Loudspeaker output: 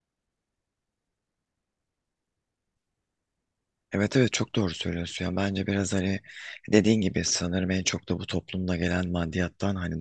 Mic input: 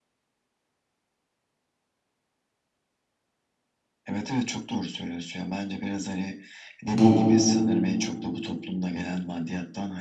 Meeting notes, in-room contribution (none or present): present